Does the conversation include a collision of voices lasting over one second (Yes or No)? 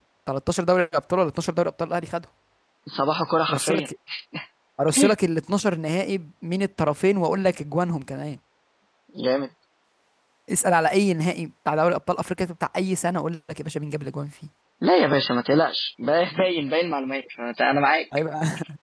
No